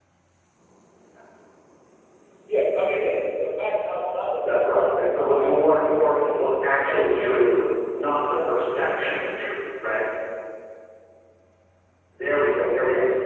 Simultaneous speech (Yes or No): Yes